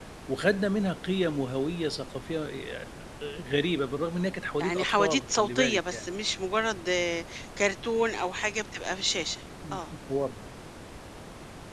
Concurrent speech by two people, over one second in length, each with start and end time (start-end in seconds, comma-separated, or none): 4.6-6.0